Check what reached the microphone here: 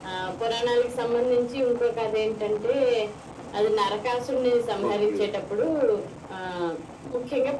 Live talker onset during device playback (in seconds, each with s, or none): 4.9 s